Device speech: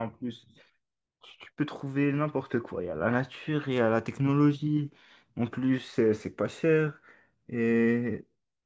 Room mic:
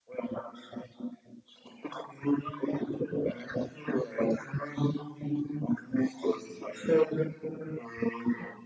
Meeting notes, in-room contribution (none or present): none